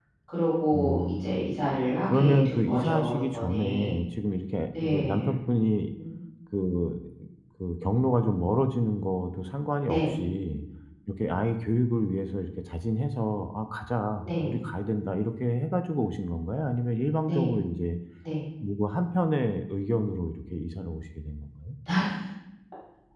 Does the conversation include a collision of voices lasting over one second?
Yes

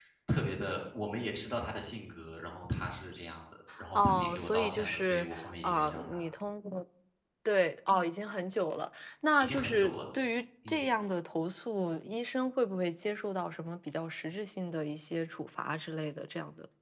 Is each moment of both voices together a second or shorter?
No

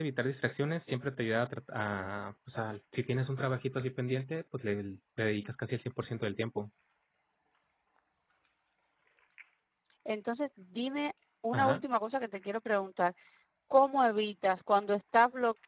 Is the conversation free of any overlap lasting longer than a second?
Yes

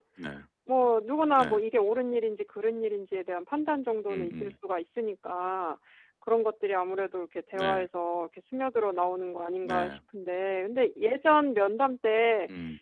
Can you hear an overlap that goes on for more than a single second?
No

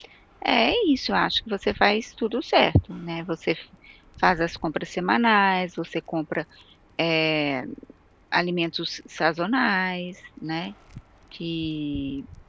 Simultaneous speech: No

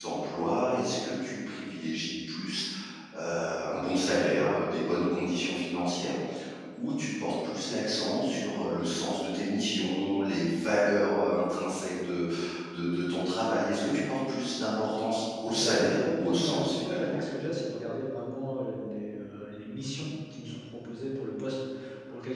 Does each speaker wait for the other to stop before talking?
No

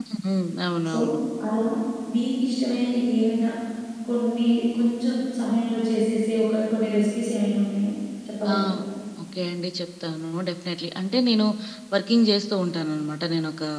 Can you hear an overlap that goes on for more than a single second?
No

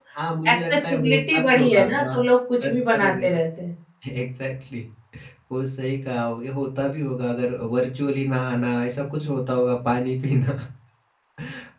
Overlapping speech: Yes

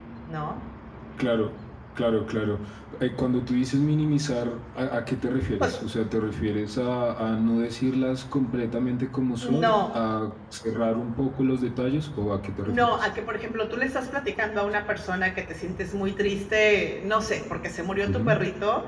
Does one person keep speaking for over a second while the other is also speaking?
No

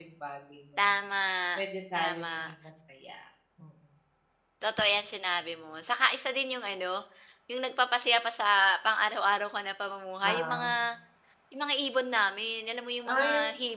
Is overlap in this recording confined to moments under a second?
Yes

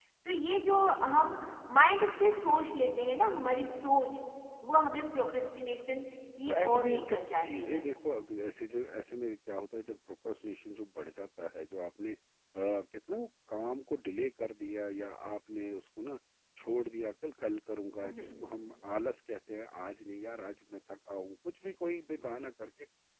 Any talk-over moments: Yes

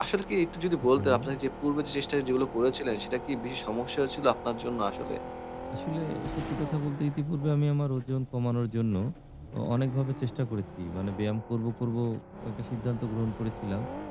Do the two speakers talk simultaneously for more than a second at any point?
No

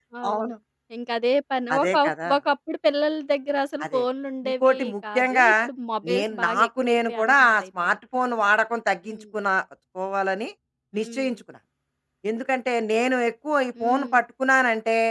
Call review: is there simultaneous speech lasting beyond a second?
Yes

